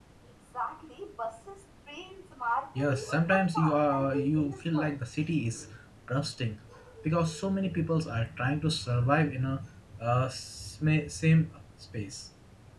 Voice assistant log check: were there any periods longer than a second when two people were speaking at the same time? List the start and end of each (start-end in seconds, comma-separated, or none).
2.8-5.0